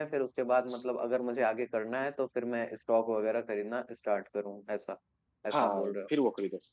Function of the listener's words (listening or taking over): taking over